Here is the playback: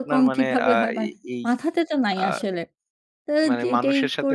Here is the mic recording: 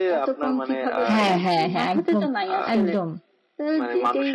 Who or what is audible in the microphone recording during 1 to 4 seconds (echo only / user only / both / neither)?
both